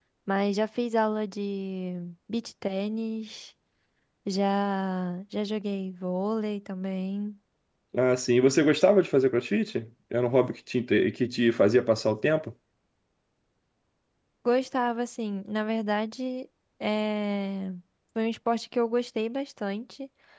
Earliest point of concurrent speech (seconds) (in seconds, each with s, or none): none